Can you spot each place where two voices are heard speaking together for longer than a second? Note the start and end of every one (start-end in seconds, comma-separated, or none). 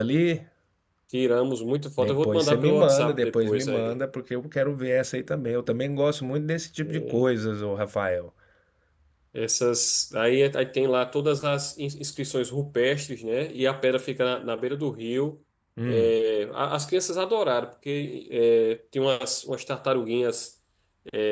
2.0-4.0